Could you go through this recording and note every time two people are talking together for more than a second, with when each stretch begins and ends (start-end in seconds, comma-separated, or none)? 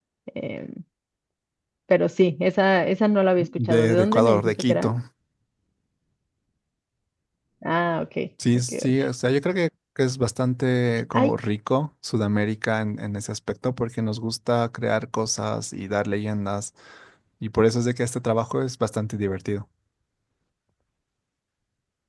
3.4-4.9